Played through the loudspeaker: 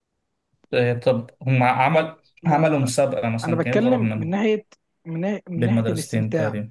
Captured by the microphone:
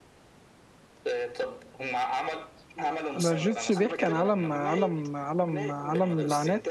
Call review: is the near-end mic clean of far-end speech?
No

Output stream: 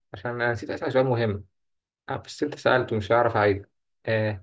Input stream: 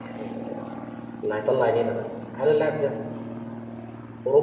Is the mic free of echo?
Yes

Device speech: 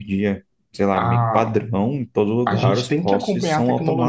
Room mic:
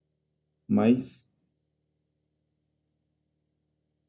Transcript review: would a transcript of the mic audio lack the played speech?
Yes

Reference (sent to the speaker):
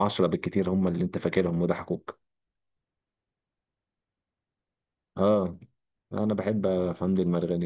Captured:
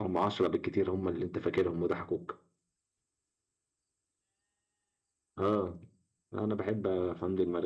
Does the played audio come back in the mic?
Yes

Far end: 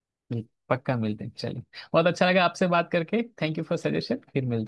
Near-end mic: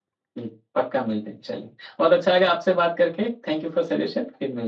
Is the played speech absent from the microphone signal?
No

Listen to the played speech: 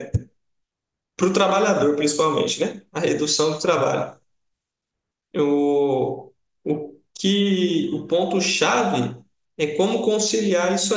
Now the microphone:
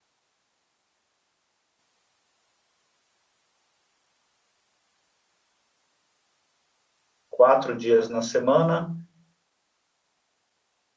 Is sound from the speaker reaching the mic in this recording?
No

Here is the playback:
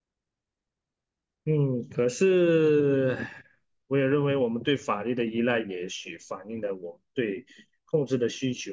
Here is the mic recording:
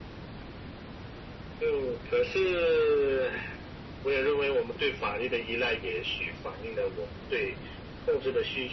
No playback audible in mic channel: No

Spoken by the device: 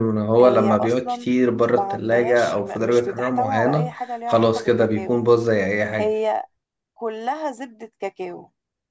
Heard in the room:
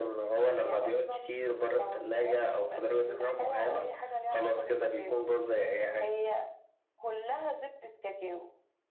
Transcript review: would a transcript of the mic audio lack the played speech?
No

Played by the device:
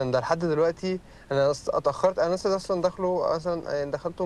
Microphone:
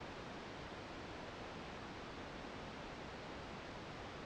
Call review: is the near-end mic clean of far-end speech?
Yes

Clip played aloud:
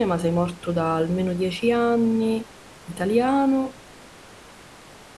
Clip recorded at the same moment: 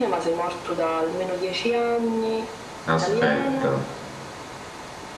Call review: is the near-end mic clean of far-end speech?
No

